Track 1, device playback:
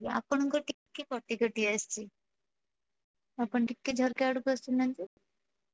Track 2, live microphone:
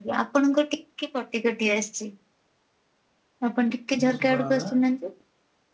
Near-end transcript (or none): ହୁଁ ଶୁଭାଗଲା